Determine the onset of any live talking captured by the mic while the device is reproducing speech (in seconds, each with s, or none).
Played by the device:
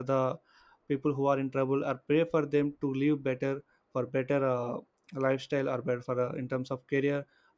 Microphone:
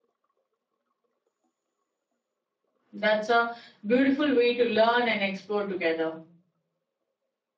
2.9 s